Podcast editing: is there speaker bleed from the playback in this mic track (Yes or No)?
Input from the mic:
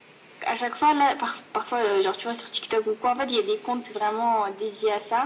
Yes